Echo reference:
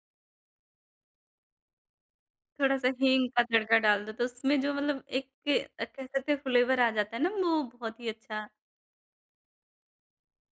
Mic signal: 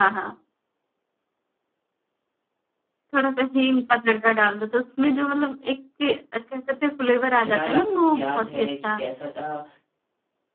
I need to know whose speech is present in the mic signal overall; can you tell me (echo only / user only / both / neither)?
both